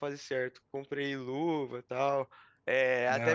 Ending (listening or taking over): listening